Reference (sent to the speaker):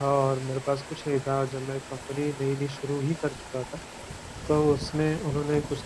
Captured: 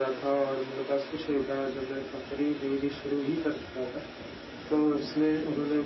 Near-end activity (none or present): none